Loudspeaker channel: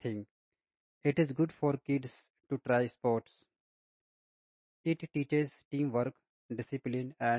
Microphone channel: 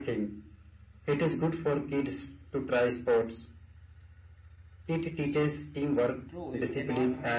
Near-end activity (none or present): present